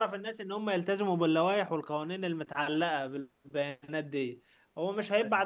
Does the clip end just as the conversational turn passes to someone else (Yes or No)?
No